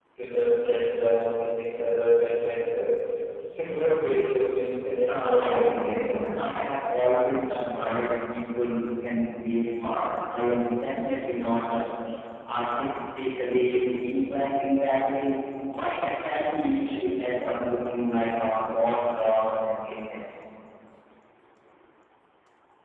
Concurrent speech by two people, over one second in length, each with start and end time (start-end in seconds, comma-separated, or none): 5.1-6.4